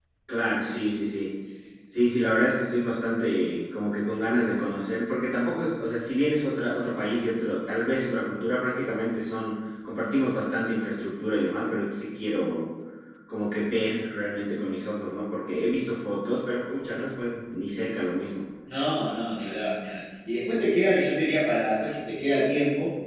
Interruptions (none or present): none